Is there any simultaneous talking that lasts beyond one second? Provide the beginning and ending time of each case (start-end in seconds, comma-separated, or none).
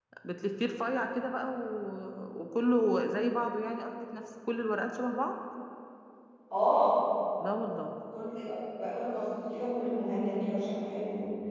none